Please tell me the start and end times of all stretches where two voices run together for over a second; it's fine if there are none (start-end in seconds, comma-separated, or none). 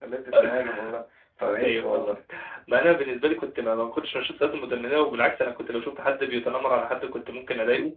none